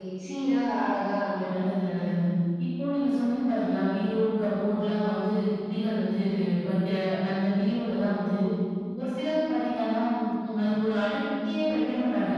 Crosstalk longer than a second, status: none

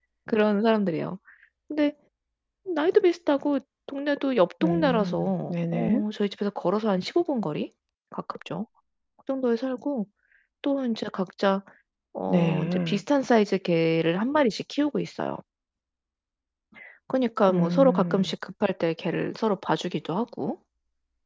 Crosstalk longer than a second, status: present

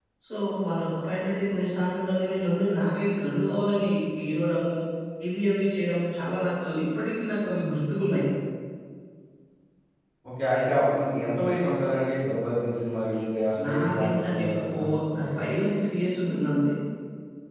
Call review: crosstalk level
present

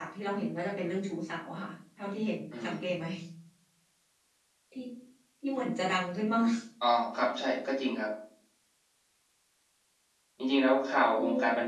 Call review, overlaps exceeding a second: none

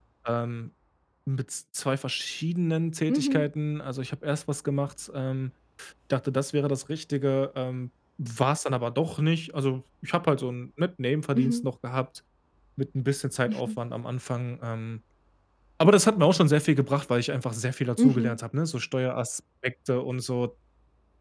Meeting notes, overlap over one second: none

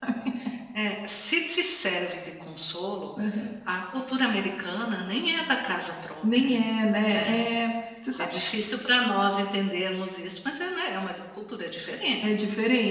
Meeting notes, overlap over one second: none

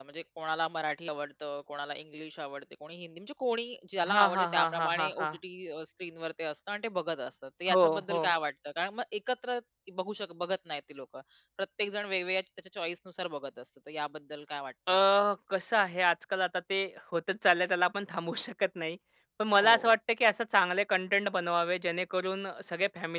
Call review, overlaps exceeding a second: present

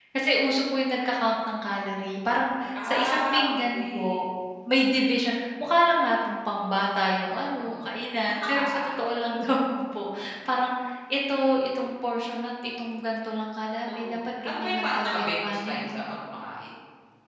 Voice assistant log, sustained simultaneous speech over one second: present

